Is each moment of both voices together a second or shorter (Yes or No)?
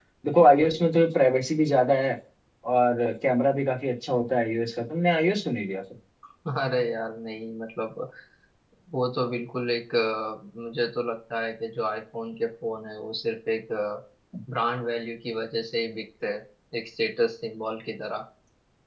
Yes